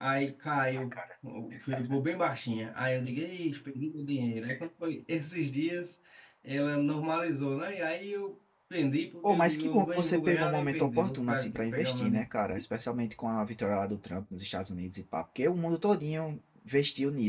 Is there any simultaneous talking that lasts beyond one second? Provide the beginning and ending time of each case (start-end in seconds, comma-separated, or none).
9.2-12.2